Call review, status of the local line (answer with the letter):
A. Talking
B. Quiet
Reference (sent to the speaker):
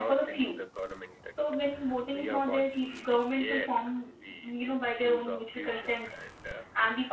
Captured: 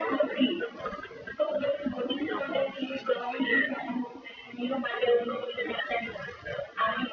B